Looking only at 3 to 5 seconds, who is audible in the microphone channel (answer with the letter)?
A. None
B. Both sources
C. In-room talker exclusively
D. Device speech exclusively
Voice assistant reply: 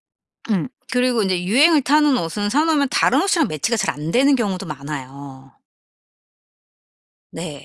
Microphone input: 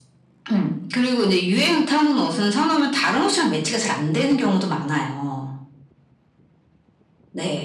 D